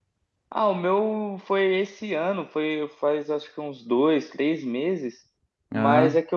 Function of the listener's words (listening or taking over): listening